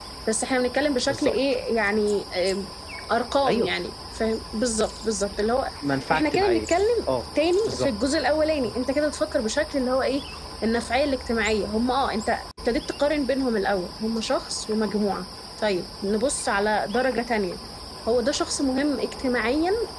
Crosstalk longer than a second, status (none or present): none